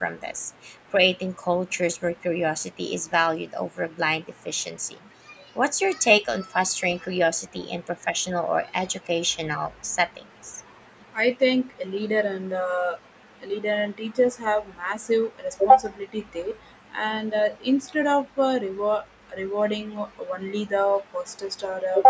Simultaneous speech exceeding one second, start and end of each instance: none

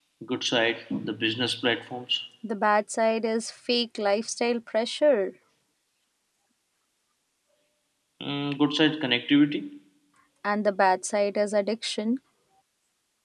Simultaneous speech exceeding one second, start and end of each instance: none

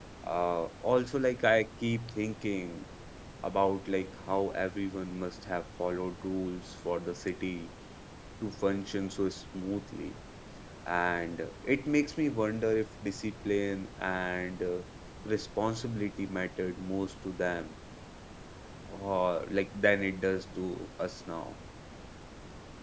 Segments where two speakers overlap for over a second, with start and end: none

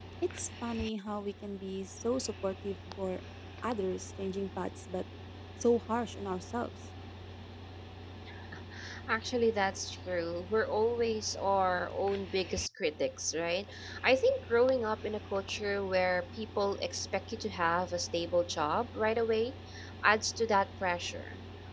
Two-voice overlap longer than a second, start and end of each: none

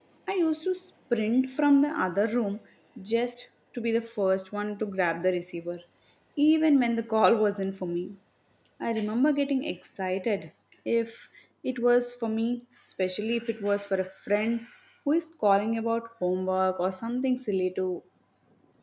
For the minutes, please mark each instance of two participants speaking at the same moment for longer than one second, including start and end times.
none

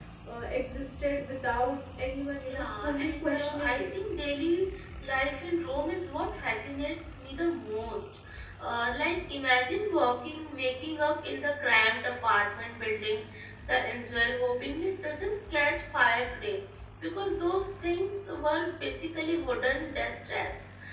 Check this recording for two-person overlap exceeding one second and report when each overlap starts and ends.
2.3-3.9

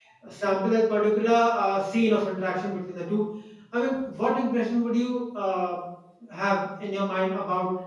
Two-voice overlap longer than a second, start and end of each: none

